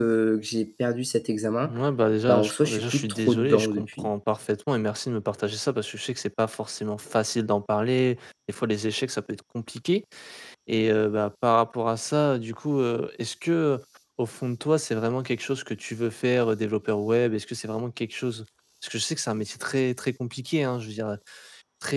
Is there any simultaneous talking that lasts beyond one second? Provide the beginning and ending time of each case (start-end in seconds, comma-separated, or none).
2.3-4.1